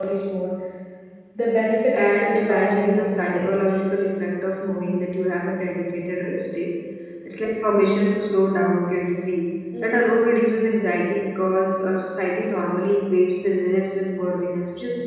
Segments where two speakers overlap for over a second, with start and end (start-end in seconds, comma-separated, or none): 1.9-3.5